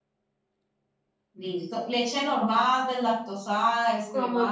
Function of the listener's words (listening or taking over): taking over